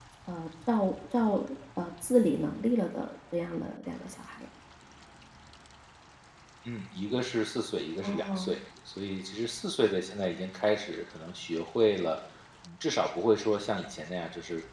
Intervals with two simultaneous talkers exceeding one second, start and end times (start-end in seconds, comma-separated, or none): none